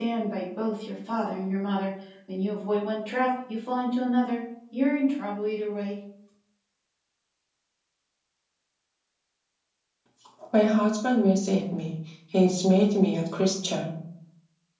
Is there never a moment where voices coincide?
Yes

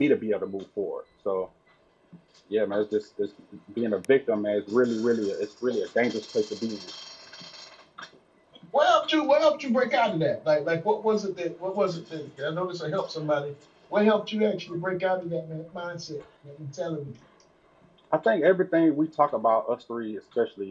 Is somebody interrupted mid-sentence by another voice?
No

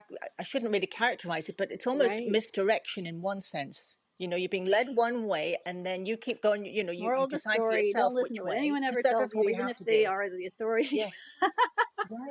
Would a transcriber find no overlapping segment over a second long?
No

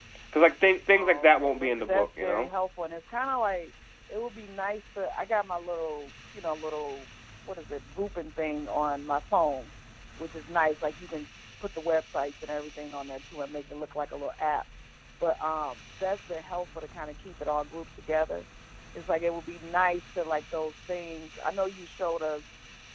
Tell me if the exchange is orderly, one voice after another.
No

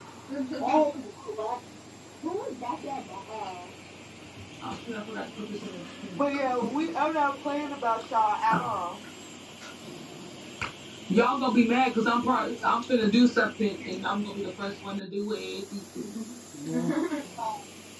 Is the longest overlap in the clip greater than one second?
No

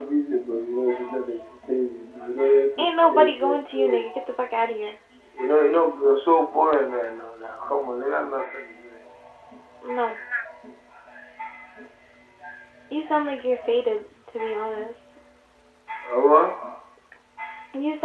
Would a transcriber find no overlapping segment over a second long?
No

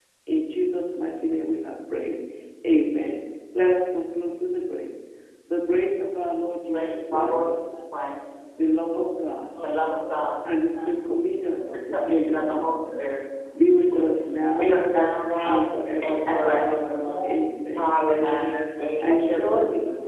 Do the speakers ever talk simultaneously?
Yes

